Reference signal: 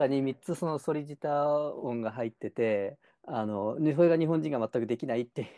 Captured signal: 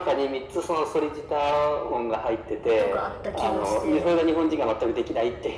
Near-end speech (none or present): present